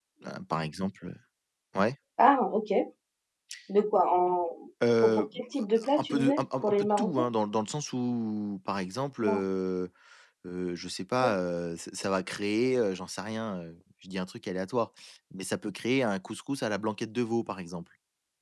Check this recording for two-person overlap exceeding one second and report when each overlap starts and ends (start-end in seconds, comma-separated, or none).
6.0-7.3